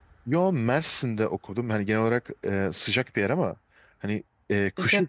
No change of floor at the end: Yes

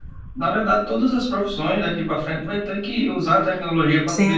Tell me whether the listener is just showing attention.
Yes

